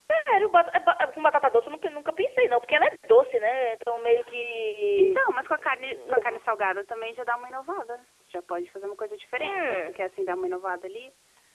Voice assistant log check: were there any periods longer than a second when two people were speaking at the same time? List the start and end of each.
none

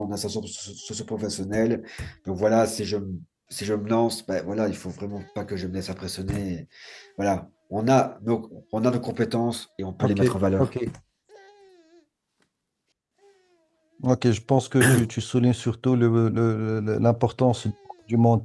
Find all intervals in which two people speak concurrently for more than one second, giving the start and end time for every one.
none

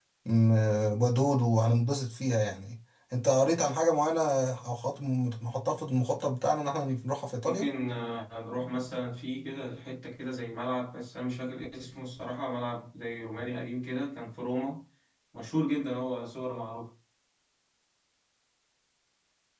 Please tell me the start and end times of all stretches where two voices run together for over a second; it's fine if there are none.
none

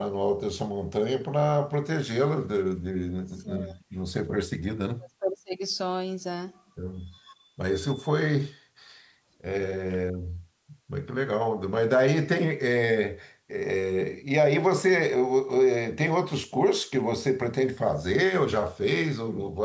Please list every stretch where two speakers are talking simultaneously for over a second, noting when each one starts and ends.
none

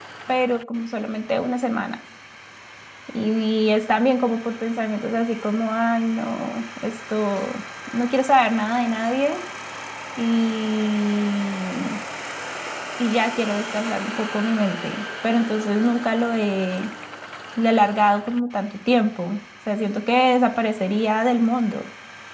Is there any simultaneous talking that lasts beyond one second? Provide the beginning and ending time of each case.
none

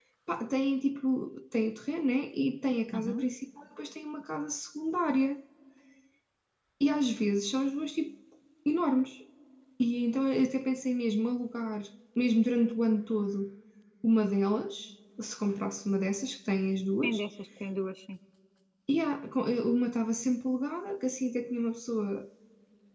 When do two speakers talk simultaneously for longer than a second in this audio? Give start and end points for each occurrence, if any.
none

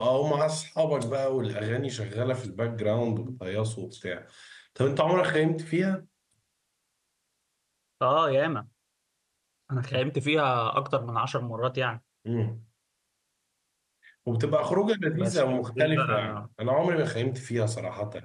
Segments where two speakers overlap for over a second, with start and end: 15.1-16.4

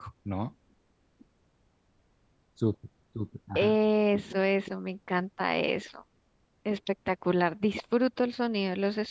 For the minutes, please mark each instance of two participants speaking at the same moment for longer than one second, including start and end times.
none

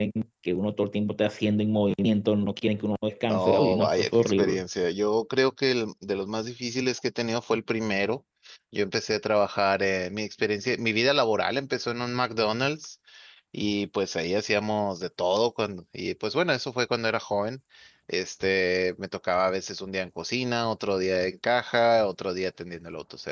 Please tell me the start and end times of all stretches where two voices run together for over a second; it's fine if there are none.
3.3-4.6

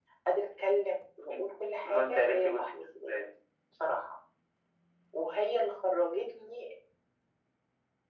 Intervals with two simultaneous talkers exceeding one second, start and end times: 1.8-3.2

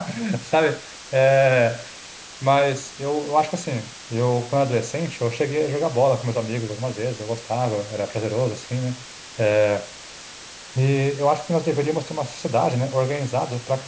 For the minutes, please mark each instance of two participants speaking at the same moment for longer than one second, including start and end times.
none

